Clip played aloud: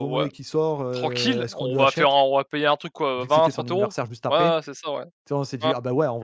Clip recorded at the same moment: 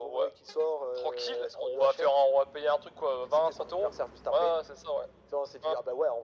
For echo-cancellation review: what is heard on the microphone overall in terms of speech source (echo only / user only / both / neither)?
echo only